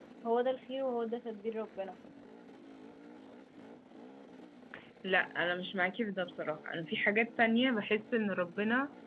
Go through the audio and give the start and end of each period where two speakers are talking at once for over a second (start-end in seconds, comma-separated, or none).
none